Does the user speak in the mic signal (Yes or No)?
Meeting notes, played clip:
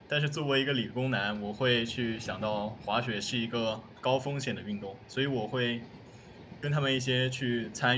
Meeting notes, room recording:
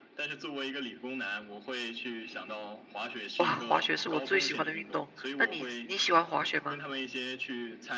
Yes